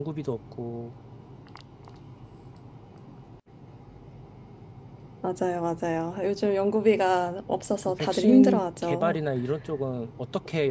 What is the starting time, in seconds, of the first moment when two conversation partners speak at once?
7.8 s

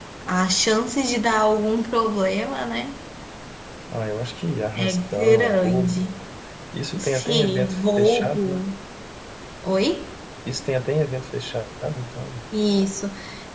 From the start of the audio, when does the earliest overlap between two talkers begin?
4.8 s

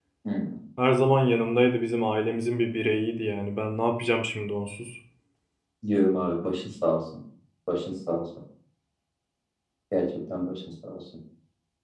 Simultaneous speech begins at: none

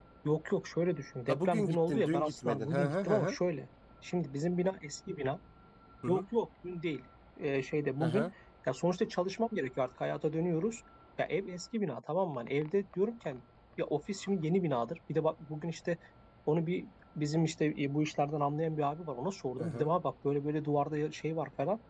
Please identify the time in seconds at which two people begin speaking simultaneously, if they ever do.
1.3 s

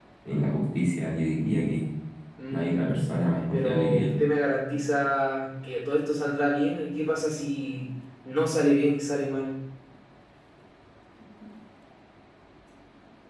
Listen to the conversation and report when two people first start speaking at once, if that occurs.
2.5 s

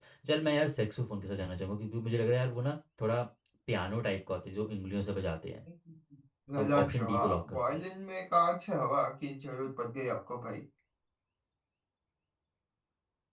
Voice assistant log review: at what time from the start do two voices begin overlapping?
6.5 s

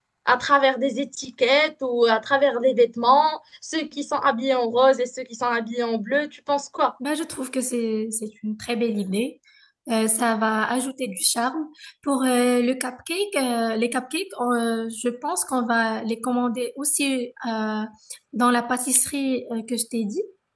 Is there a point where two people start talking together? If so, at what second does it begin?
none

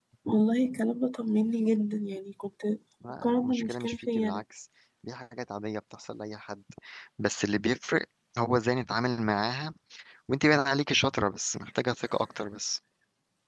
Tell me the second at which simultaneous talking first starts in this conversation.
3.2 s

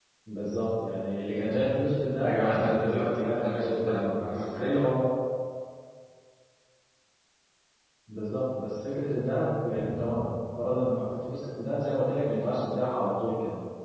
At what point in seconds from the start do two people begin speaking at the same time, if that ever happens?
2.2 s

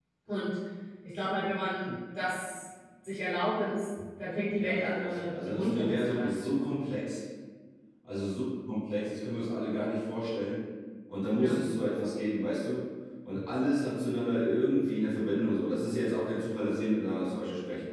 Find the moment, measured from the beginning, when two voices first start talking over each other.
4.6 s

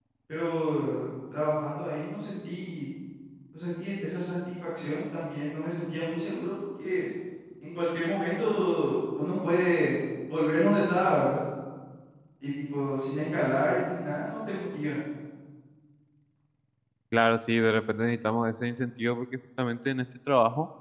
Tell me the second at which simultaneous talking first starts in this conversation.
none

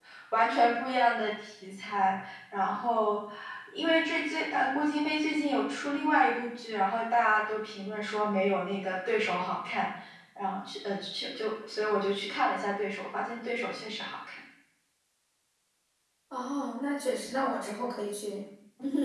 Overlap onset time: none

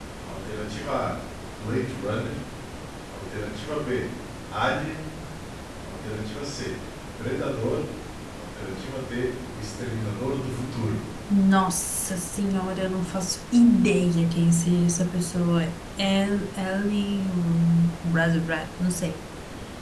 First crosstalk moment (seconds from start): none

